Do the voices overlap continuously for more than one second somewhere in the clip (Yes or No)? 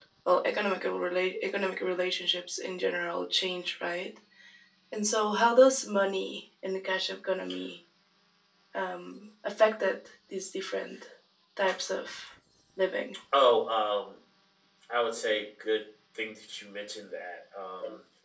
No